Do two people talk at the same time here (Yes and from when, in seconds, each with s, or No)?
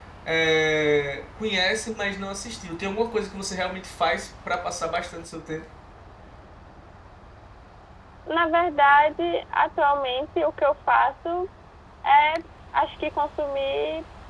No